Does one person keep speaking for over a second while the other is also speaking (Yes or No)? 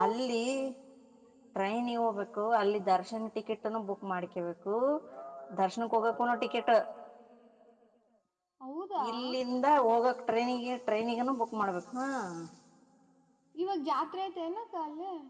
No